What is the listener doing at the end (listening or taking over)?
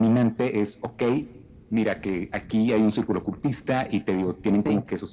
listening